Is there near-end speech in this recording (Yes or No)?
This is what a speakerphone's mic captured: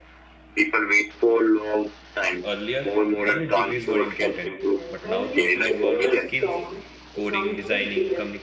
Yes